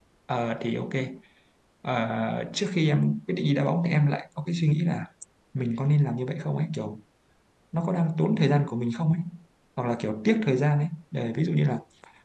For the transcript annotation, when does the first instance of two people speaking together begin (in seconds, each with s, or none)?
none